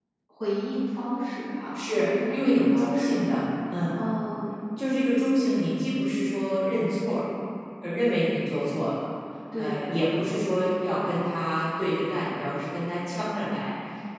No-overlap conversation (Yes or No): No